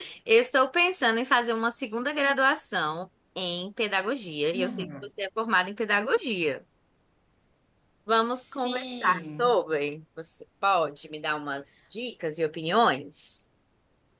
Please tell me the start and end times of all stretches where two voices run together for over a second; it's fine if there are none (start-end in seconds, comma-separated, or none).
8.3-9.6